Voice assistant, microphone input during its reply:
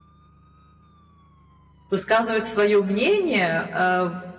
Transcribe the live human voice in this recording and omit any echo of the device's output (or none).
высказывать свое мнение, а,